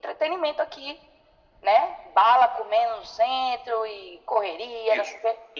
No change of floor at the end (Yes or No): No